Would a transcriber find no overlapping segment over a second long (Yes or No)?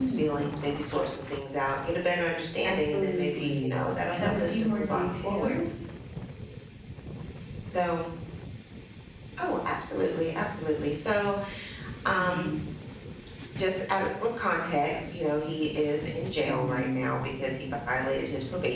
No